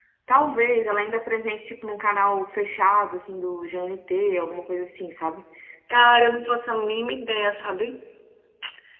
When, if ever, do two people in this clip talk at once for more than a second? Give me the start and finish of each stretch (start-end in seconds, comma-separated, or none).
none